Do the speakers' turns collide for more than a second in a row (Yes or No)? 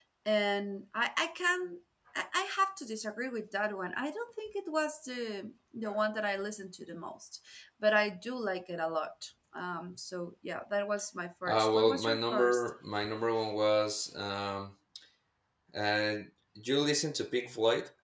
Yes